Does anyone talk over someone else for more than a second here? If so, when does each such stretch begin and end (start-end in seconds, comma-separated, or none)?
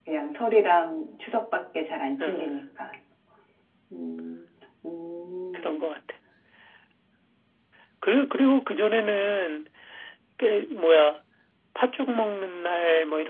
none